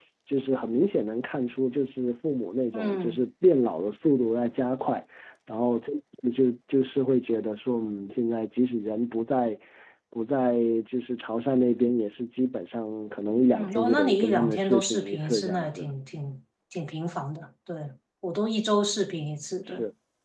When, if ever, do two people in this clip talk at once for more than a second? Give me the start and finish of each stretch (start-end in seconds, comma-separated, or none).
13.5-15.9